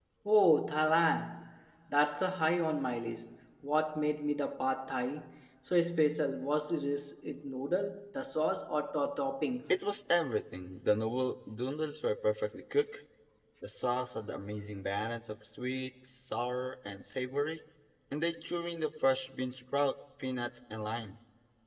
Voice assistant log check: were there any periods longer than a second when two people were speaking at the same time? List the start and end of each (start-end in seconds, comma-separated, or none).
none